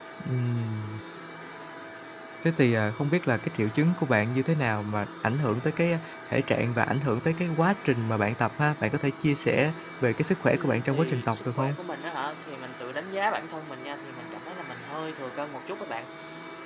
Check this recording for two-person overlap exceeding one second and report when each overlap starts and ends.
10.5-11.7

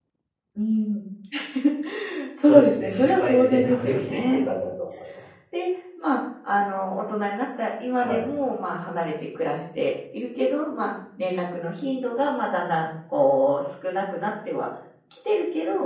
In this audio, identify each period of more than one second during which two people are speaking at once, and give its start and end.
2.4-4.4

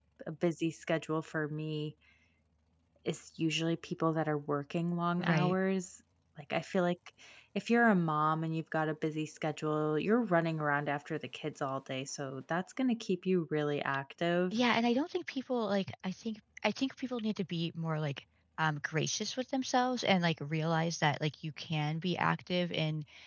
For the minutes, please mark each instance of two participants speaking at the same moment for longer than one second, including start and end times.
none

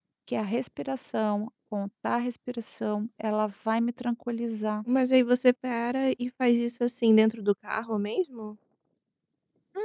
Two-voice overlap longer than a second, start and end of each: none

